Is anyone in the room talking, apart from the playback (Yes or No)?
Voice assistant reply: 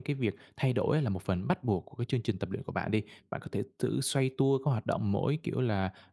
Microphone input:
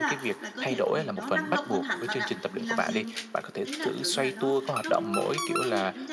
Yes